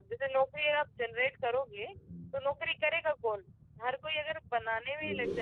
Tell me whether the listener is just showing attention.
Yes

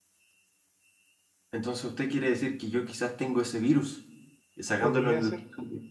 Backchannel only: Yes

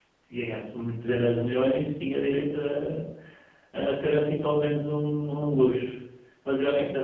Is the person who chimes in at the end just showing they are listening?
Yes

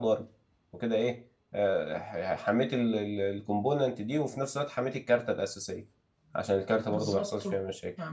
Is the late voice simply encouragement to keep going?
No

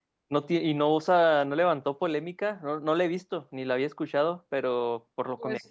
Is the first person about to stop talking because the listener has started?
Yes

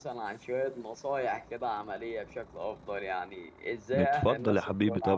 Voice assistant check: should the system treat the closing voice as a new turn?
Yes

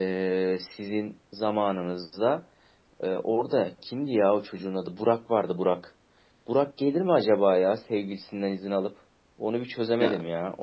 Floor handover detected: No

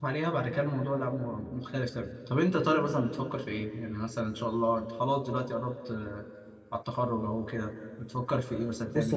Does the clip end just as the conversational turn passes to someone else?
Yes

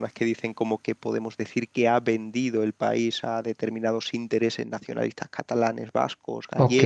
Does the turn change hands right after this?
Yes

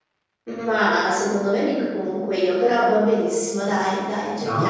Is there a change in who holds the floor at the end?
Yes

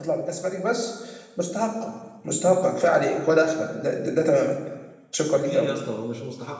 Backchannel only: No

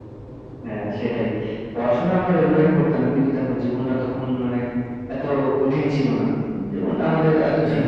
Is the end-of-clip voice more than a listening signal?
No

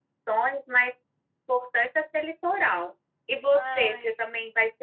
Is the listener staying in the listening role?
Yes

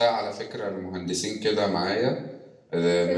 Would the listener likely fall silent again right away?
Yes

